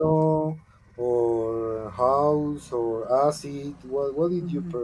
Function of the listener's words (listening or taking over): taking over